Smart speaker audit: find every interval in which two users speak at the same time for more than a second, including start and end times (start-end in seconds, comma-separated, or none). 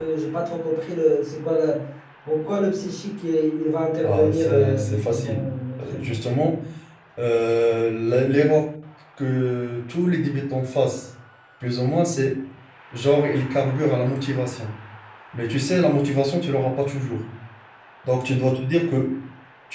4.0-5.4